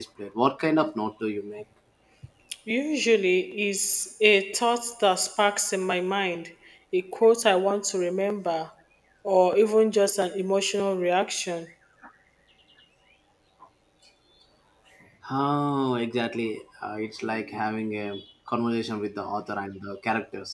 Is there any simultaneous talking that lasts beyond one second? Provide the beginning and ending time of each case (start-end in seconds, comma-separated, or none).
none